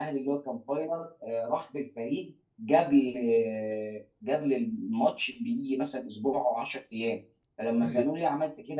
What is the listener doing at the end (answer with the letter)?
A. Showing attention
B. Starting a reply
A